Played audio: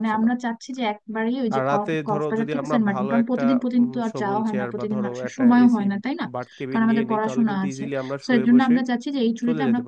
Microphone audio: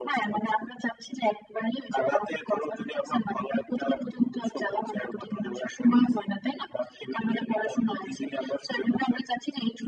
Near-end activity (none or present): none